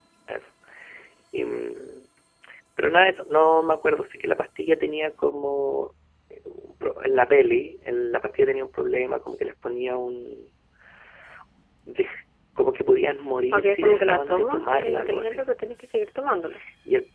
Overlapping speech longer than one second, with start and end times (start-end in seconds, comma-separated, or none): 13.5-15.4